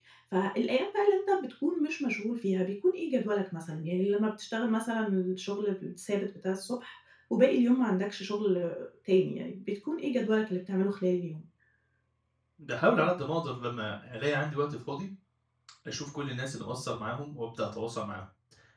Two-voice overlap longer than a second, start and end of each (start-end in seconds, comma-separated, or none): none